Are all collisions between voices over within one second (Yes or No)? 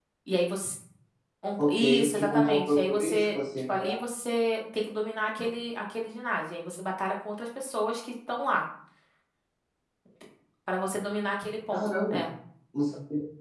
No